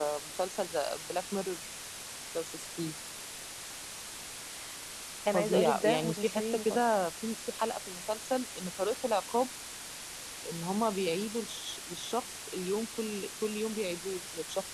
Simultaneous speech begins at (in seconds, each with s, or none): 5.3 s